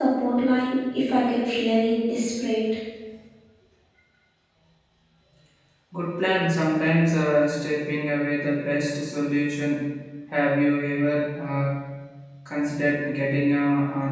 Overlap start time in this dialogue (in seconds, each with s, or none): none